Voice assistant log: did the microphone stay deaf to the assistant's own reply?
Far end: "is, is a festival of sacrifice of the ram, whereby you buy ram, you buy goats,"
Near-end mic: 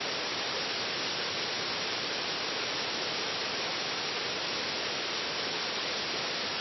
Yes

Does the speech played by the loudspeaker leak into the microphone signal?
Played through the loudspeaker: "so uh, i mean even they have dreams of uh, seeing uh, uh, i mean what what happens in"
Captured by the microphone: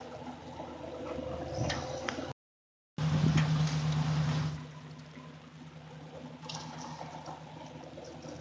No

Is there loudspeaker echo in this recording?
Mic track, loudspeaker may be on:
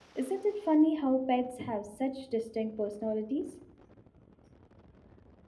No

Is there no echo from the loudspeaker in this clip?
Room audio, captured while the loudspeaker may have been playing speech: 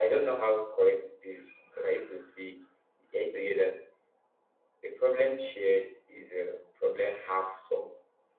Yes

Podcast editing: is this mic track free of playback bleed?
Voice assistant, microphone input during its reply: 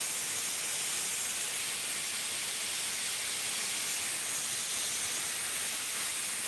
Yes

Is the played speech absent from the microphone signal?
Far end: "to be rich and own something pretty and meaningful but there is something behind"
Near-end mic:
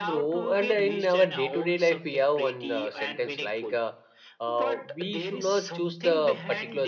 No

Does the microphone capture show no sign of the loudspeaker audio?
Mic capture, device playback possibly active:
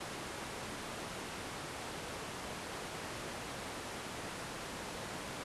Yes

